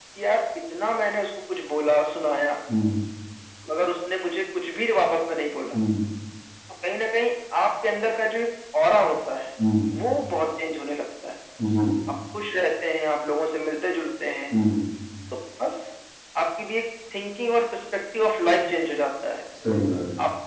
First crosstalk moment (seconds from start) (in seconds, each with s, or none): none